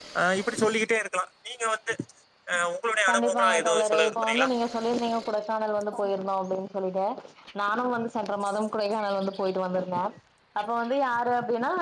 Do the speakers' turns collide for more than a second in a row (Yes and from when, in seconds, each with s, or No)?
Yes, from 3.1 s